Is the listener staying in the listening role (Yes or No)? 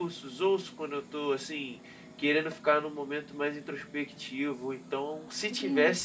No